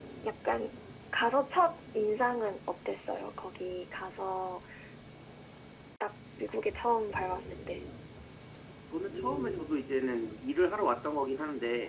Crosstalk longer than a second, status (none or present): none